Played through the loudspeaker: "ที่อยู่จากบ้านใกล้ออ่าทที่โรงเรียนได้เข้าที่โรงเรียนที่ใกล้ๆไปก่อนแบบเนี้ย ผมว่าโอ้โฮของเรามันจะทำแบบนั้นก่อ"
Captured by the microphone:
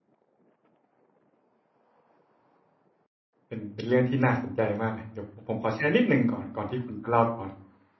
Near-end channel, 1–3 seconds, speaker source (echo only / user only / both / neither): neither